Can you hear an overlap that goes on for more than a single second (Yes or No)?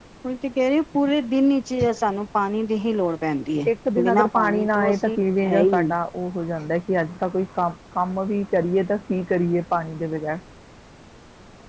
Yes